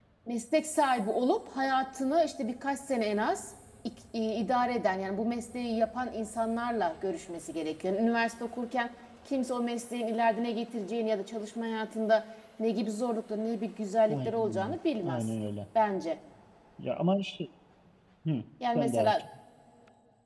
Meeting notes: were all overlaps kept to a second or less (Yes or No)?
No